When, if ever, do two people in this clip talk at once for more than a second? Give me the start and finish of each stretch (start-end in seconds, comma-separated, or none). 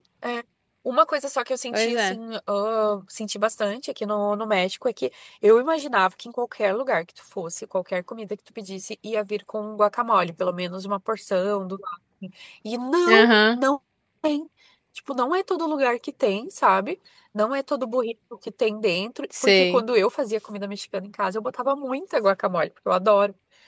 none